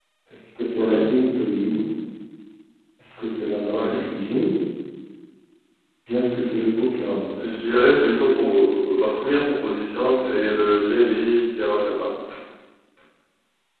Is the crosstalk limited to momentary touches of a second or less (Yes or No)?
Yes